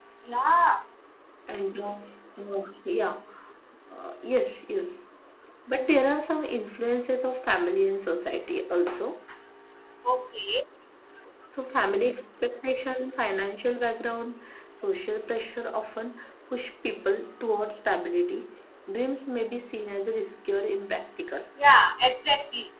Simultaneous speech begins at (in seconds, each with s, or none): none